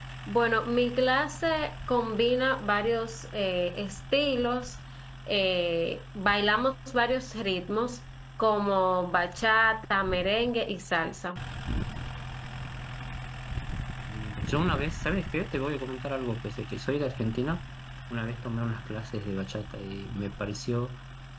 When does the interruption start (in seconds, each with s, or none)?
none